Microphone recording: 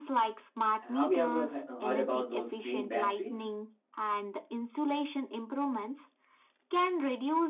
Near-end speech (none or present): present